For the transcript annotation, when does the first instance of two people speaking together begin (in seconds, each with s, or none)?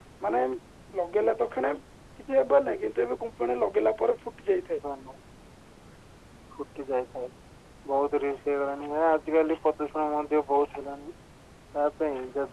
none